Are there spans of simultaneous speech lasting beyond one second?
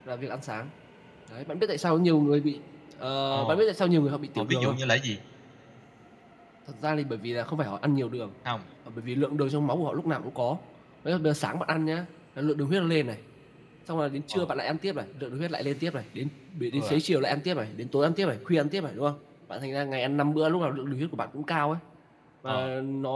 No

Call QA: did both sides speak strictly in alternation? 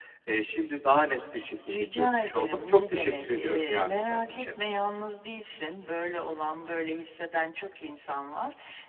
No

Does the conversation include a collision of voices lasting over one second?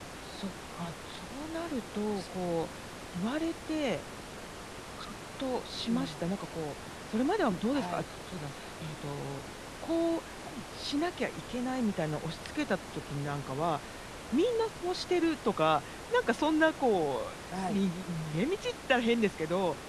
No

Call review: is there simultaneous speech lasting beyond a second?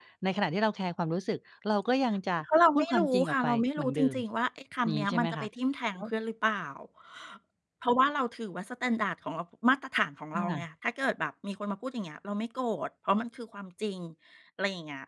Yes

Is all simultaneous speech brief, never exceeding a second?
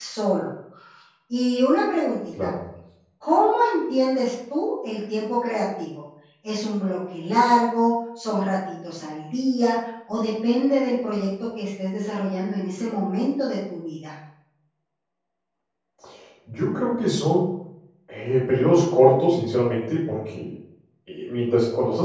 Yes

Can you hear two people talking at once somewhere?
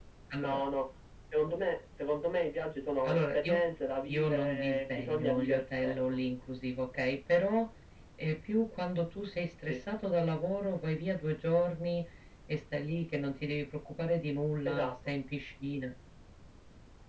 Yes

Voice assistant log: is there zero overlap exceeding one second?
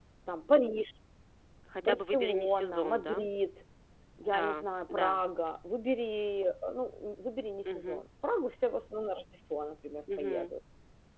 No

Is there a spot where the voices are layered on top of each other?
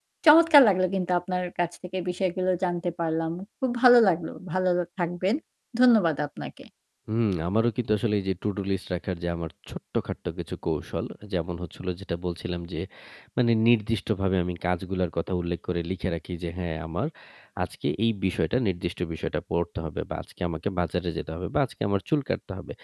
No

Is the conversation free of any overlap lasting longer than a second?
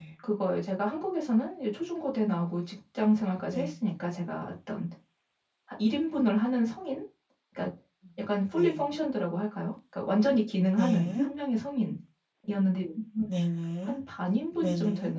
Yes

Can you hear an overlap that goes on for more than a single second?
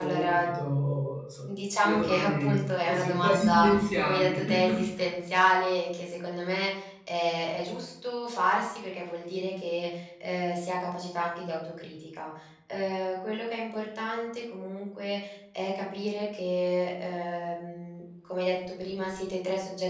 Yes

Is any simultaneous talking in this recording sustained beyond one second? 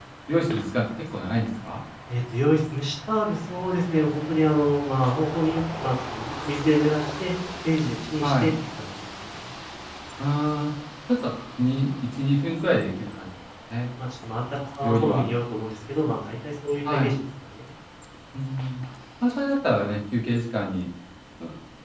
No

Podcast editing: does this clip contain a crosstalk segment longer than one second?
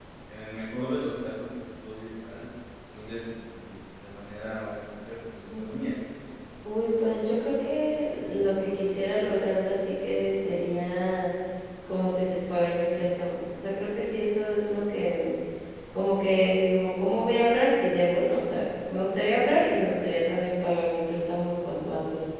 No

